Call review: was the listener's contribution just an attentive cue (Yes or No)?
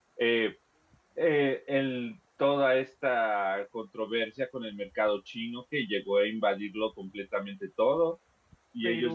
Yes